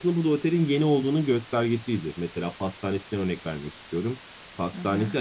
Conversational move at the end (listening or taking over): listening